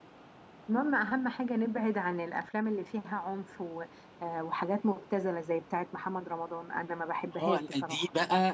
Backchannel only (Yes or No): No